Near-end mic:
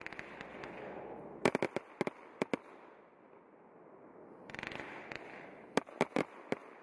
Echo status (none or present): none